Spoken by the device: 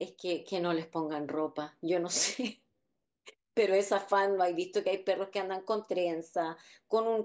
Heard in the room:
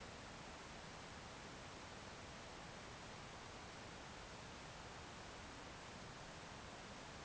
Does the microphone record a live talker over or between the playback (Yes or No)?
No